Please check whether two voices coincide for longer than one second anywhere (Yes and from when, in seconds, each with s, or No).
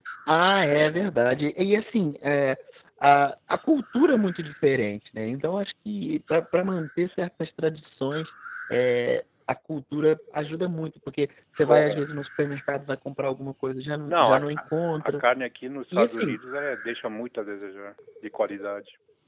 No